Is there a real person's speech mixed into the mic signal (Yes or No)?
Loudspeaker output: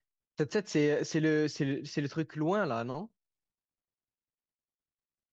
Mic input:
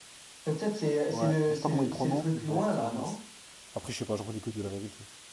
Yes